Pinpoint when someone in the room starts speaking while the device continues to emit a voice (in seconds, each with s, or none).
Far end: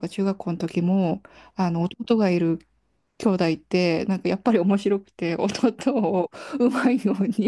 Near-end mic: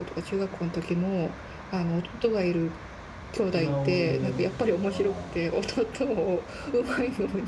3.5 s